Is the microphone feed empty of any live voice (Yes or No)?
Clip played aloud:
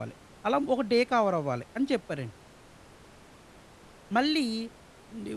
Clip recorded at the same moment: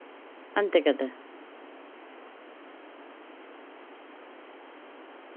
No